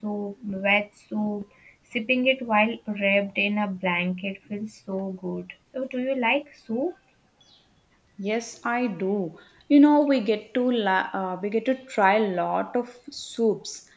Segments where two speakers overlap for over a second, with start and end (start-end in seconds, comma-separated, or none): none